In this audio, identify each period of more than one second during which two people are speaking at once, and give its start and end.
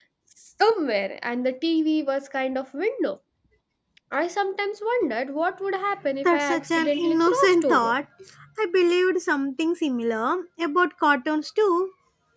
6.2-7.9

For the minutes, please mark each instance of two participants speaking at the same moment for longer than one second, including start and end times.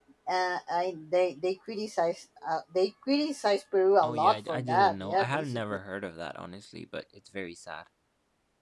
4.0-5.6

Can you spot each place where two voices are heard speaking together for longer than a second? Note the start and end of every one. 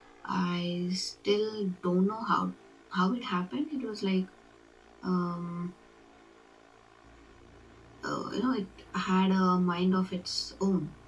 none

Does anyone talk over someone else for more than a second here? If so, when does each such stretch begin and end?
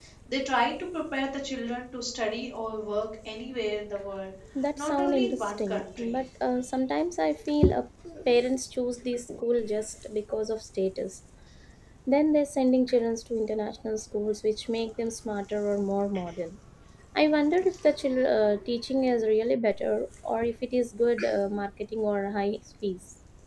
4.8-6.2

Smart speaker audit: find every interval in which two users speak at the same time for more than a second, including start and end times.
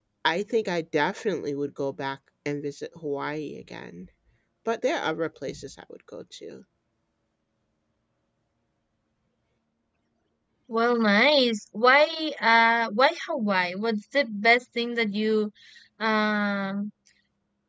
none

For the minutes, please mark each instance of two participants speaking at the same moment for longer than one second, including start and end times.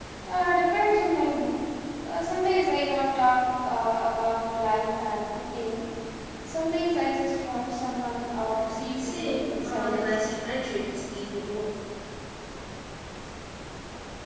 9.0-10.2

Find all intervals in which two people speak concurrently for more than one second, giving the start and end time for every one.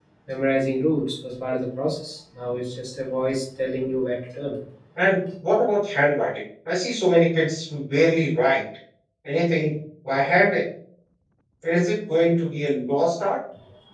none

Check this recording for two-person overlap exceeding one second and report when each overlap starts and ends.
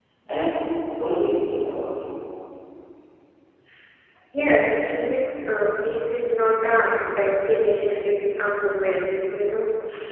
none

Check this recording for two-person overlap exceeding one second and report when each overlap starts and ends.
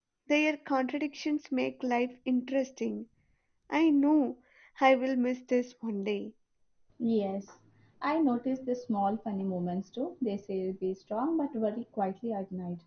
none

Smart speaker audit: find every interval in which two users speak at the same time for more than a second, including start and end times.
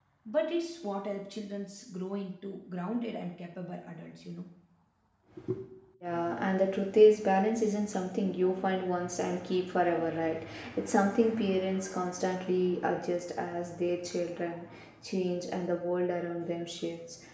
none

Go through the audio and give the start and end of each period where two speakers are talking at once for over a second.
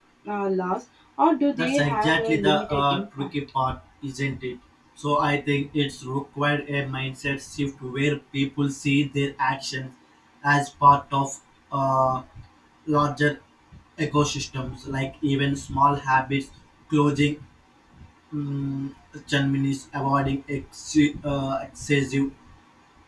1.6-3.3

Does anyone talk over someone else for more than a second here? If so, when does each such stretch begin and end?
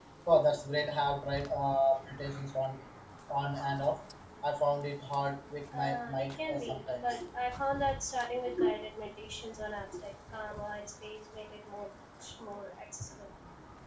5.7-7.0

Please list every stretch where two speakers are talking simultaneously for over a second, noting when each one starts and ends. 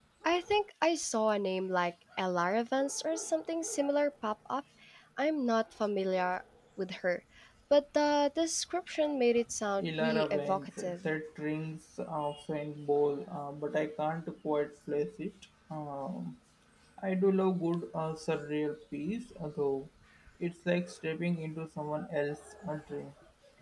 9.8-11.1

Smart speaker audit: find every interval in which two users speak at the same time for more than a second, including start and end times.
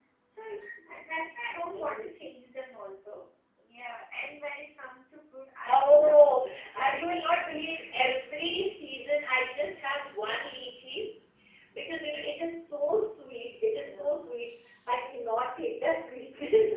5.7-7.0

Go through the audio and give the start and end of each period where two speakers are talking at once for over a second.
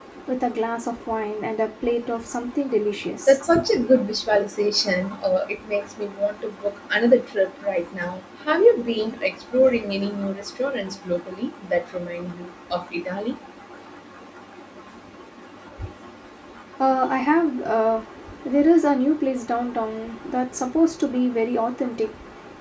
none

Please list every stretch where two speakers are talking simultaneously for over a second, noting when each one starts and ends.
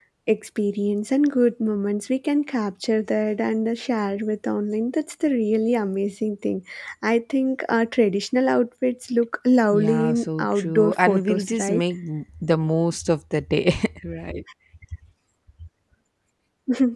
9.7-11.8

